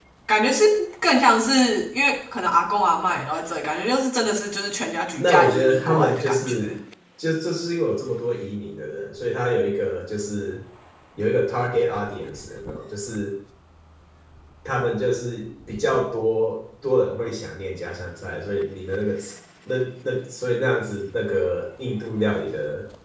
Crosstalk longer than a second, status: present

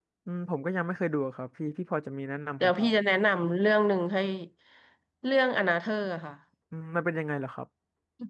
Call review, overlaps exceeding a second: none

